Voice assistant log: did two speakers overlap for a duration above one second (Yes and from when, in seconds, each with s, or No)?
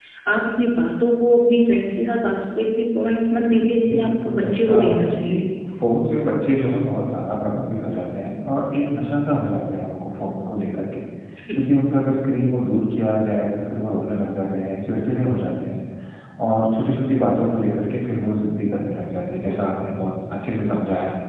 Yes, from 3.8 s